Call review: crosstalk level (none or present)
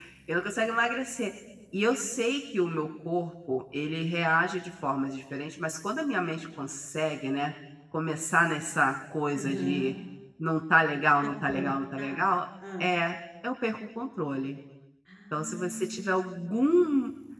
present